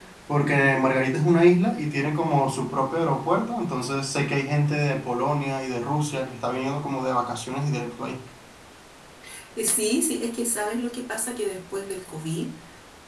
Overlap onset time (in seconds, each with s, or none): none